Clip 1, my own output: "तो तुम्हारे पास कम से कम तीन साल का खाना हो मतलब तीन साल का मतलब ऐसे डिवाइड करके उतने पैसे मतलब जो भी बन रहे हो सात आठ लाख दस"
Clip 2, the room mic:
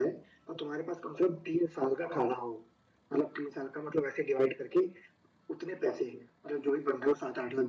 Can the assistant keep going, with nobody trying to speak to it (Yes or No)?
Yes